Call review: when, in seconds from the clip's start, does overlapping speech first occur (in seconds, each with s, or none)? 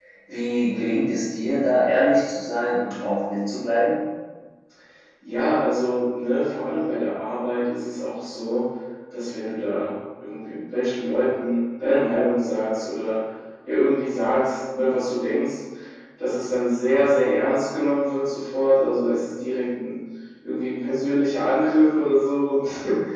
none